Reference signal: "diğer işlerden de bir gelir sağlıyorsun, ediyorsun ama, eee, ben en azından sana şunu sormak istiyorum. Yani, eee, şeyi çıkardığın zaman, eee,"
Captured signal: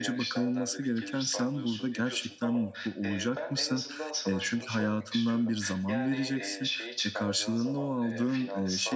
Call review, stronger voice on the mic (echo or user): user